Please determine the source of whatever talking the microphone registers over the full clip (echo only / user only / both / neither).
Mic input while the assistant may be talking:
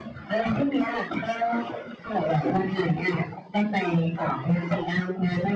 echo only